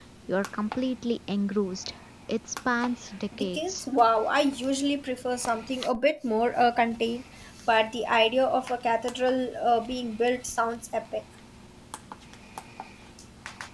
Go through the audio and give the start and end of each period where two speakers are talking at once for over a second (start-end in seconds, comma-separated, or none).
none